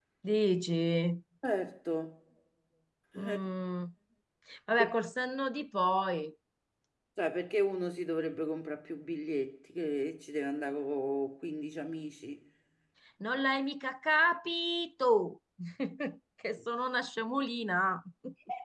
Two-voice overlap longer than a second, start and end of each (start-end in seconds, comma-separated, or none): none